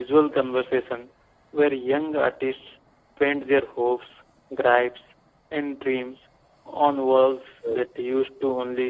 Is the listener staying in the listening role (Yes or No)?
Yes